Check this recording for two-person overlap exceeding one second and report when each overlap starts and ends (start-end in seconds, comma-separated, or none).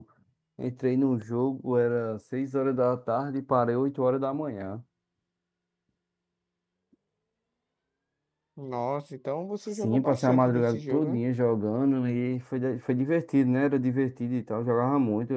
9.7-11.2